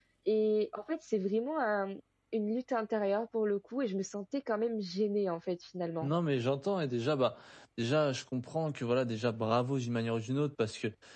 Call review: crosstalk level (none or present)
none